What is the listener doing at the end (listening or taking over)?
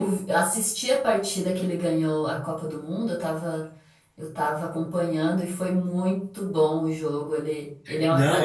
taking over